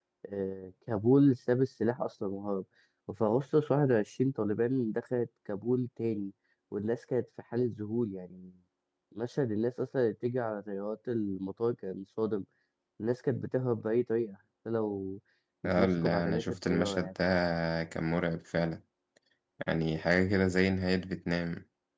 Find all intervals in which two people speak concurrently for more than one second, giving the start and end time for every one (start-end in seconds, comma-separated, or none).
15.6-17.1